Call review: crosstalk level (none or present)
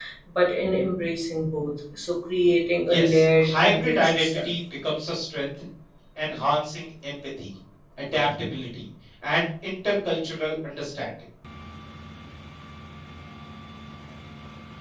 present